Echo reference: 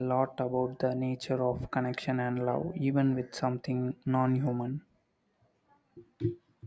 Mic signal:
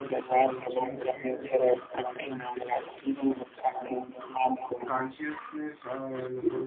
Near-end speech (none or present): present